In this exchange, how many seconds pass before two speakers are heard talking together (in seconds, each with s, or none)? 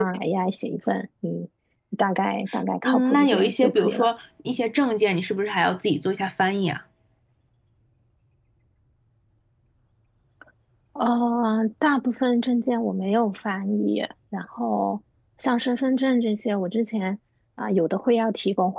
2.8 s